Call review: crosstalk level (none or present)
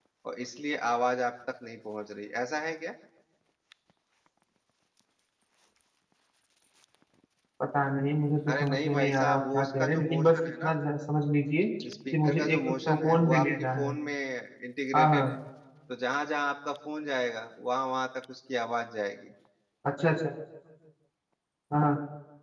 present